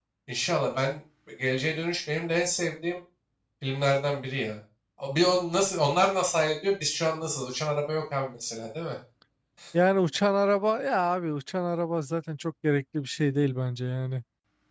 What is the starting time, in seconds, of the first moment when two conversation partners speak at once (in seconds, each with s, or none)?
none